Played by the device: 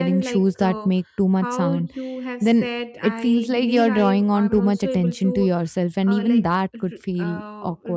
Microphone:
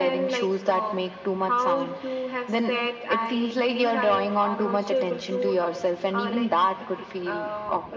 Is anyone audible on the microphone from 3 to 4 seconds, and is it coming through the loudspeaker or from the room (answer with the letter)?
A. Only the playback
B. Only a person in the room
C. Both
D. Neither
A